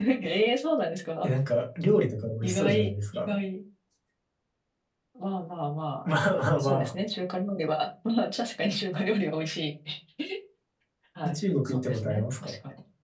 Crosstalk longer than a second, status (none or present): present